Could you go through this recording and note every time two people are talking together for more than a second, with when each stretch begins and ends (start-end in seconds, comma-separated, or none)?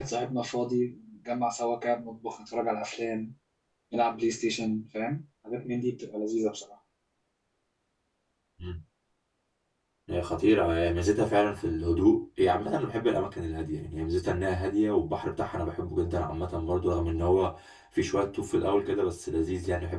none